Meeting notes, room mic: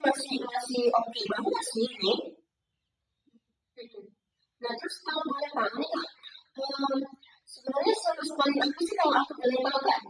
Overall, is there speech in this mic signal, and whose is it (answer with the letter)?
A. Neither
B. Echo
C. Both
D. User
B